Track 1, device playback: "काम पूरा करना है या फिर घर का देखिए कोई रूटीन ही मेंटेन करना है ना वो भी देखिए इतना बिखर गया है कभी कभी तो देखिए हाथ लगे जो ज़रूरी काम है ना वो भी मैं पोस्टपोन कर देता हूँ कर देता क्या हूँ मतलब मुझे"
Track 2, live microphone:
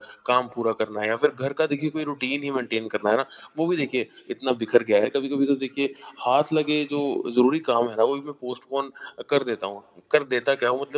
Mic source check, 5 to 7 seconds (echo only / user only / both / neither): echo only